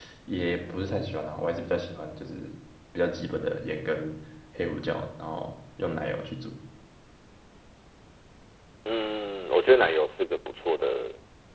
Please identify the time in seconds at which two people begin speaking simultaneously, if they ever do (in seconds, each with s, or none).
none